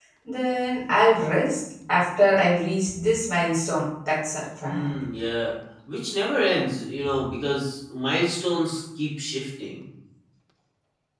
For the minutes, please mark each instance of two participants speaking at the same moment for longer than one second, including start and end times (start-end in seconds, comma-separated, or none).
none